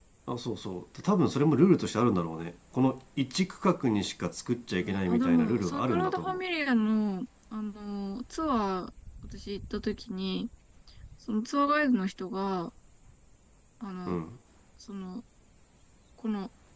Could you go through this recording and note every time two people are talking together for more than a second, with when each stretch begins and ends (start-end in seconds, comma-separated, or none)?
4.8-6.4